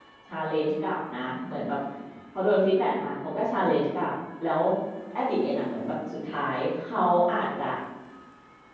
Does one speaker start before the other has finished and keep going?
No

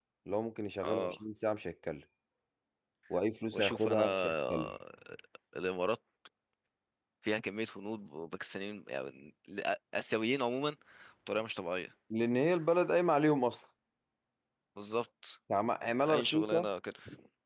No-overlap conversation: No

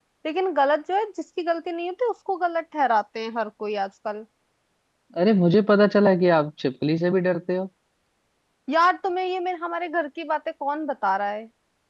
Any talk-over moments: No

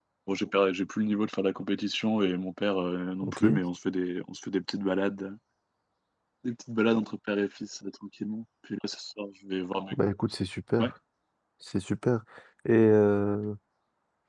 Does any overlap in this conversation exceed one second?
No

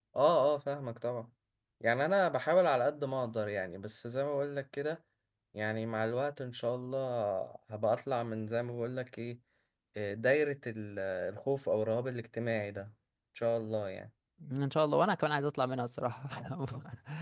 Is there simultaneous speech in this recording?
No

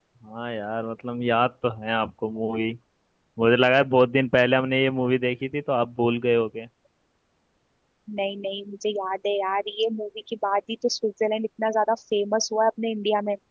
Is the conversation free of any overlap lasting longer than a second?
Yes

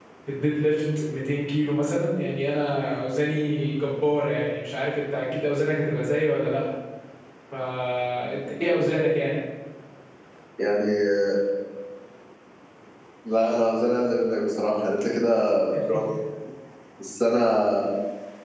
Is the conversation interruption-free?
Yes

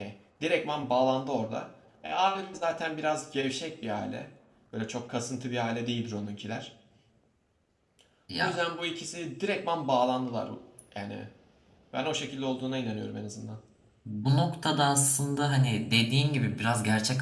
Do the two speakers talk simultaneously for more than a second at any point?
No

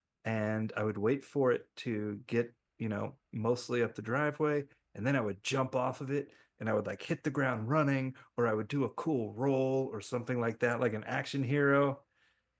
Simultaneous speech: No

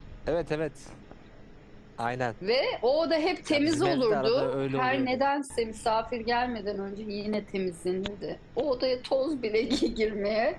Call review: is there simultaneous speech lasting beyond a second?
Yes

